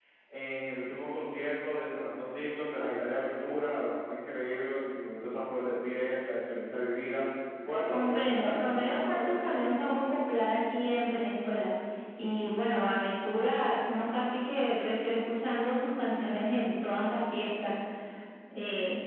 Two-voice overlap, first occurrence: 7.9 s

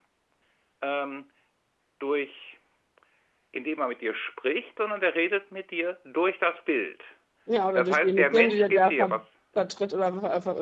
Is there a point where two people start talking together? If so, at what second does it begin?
7.8 s

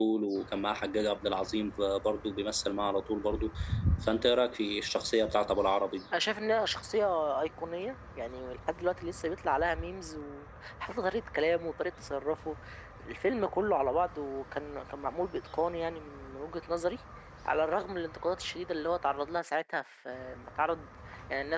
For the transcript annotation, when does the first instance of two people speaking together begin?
none

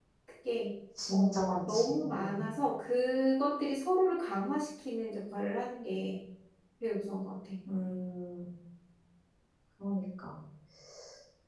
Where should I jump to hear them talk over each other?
1.1 s

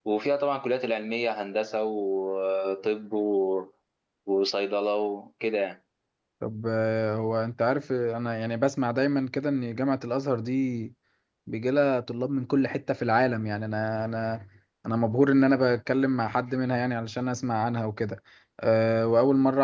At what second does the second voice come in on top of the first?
none

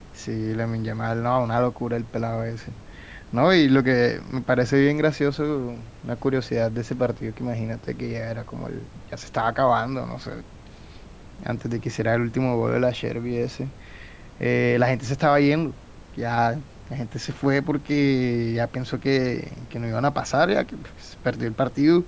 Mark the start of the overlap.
none

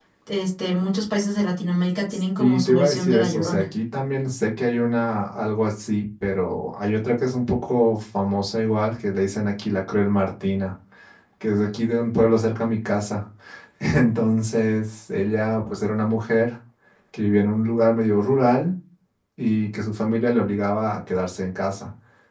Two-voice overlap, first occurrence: 2.4 s

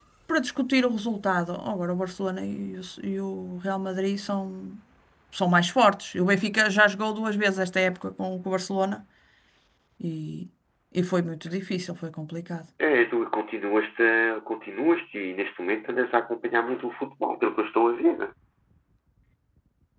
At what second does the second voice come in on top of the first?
none

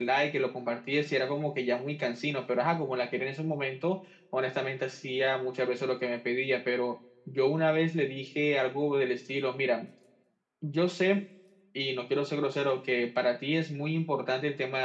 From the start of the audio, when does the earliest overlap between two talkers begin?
none

